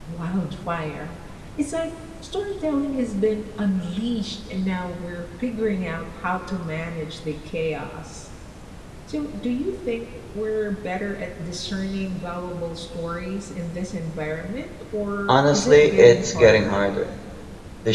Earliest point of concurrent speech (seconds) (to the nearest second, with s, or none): 15 s